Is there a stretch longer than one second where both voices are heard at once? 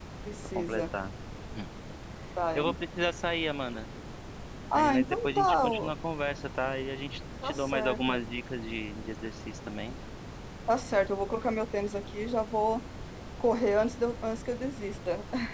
Yes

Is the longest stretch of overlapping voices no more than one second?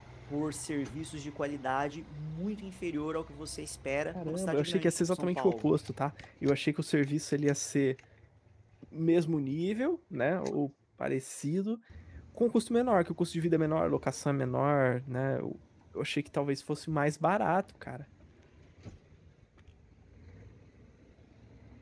No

